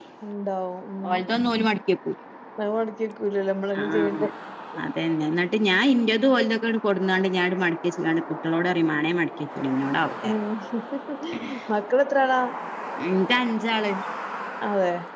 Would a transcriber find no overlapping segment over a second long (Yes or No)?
Yes